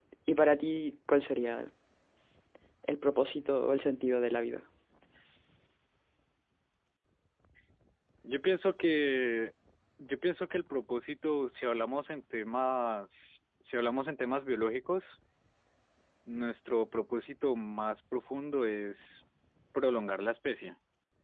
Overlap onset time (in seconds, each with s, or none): none